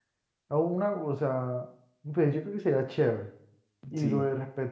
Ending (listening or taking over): listening